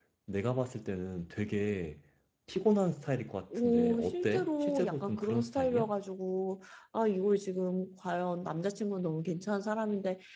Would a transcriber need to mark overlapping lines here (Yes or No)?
Yes